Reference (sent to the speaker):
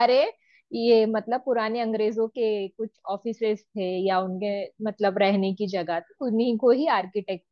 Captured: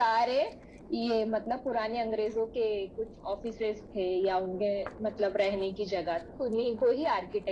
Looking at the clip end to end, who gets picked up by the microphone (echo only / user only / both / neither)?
echo only